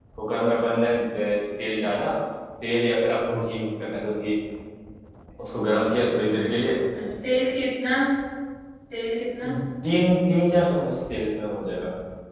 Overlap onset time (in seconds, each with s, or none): none